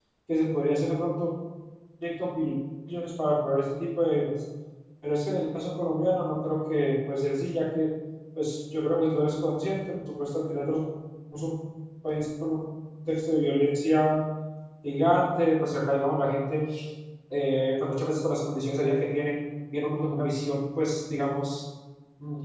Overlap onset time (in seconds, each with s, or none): none